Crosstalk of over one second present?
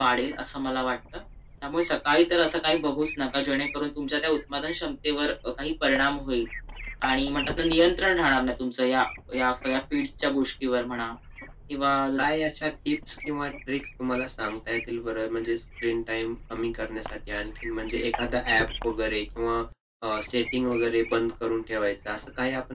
No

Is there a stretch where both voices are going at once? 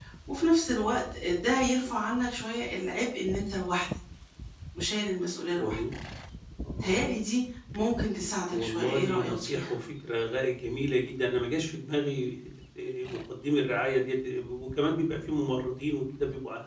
Yes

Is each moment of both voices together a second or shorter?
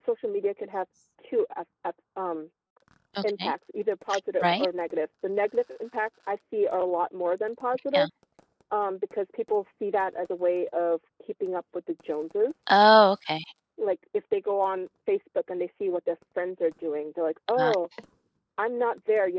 Yes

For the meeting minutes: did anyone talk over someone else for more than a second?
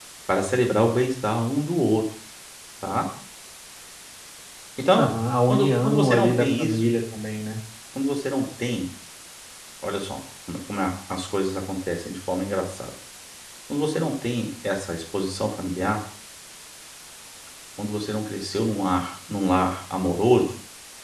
Yes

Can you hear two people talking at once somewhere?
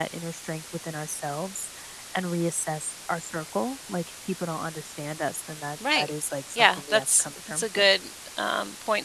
Yes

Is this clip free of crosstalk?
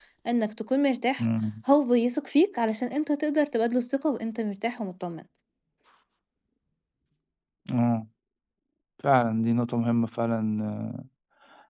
Yes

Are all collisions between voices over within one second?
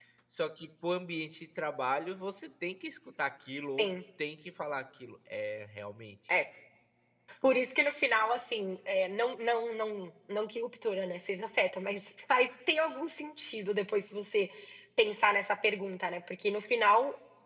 Yes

